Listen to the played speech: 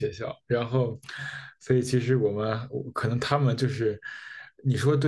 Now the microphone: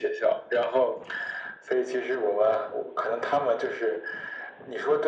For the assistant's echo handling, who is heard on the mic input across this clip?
echo only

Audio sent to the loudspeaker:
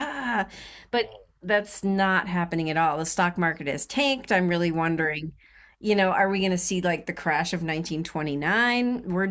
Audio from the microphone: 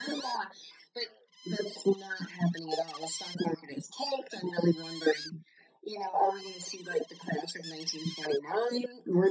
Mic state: echo only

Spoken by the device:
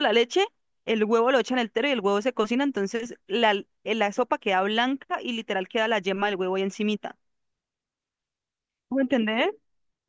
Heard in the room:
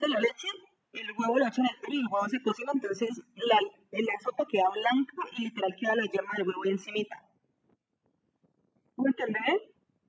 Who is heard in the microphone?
echo only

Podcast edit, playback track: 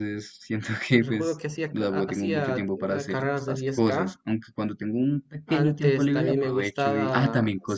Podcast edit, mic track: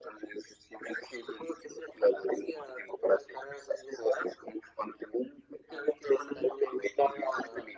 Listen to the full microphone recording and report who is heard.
echo only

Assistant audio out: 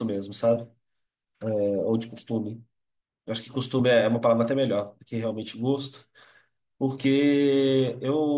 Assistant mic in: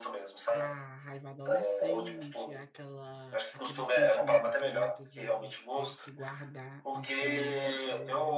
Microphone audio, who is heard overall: both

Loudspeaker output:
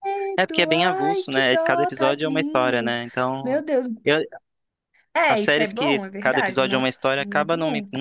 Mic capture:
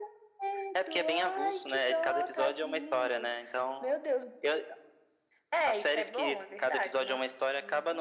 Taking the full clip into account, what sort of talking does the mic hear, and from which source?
echo only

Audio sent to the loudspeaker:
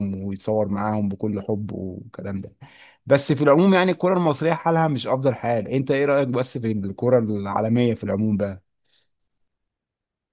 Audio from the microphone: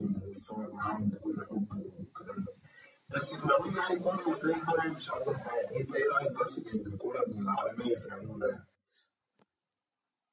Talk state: echo only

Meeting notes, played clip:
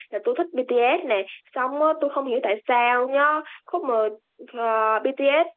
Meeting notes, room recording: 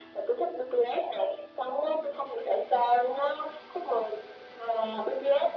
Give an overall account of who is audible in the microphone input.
echo only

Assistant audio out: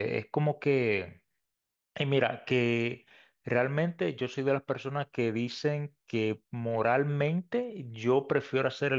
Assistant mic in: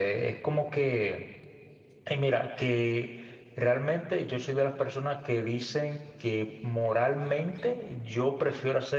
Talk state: echo only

